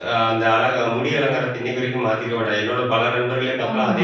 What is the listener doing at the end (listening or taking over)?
listening